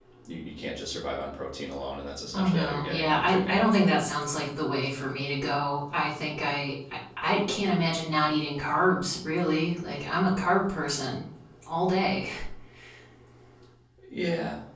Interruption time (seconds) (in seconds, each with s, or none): 2.3 s